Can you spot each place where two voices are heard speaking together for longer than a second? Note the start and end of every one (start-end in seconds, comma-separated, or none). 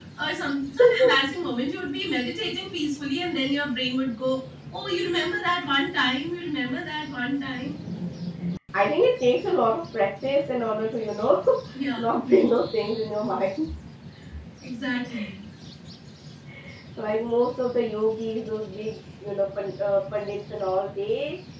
none